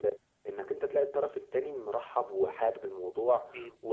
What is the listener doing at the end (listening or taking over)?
listening